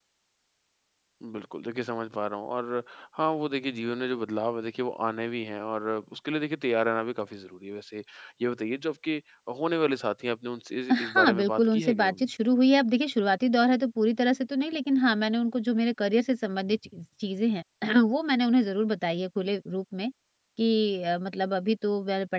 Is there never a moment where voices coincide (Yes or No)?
No